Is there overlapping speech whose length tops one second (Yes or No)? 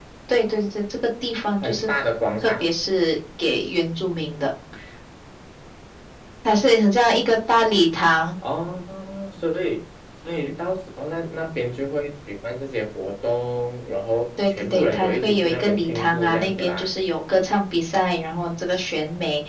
Yes